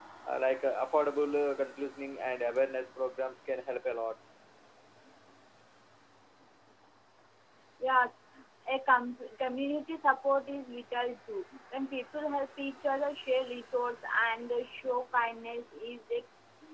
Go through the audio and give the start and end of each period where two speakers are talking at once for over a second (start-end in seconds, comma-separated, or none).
none